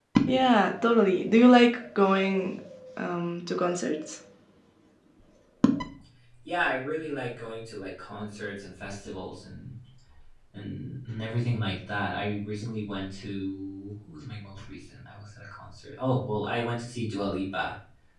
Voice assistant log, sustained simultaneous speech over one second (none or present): none